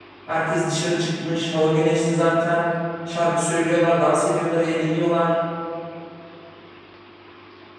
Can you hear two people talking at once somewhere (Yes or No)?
No